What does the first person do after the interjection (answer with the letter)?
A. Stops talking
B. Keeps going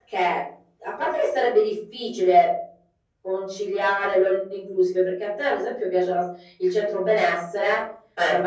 B